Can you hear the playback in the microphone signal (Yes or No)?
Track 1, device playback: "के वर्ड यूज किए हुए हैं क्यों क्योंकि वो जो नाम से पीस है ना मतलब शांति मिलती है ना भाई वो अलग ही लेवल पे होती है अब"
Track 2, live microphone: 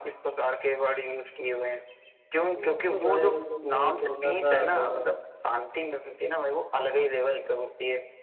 Yes